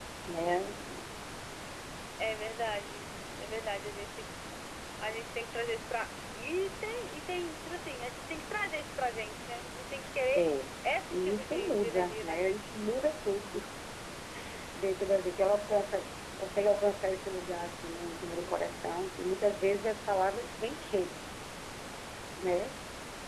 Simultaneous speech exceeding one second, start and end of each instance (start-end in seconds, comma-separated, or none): 11.1-12.6